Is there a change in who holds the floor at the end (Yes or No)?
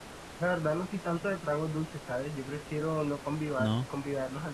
No